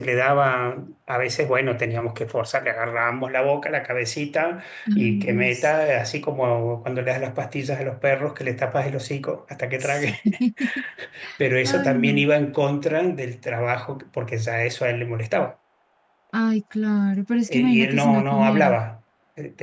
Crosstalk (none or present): present